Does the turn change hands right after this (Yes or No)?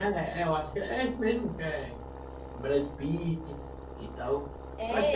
Yes